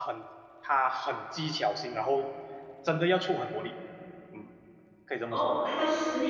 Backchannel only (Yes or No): No